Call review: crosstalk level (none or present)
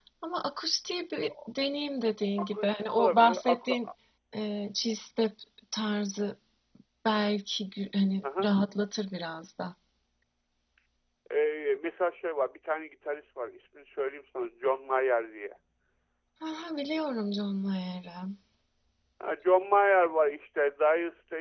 present